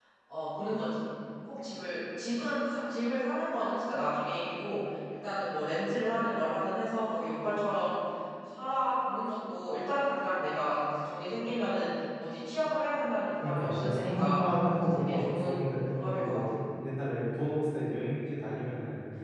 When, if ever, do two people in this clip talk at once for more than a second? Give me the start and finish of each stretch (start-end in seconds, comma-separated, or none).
13.4-16.6